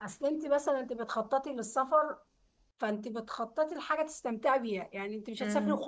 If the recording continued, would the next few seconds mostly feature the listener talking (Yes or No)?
No